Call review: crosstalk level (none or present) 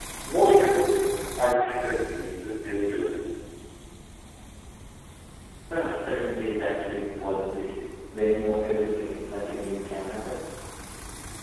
none